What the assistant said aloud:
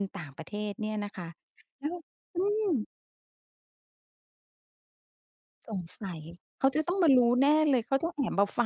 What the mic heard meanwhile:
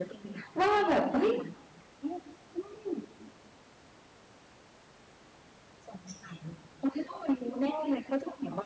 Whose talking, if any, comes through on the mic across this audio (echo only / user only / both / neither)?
both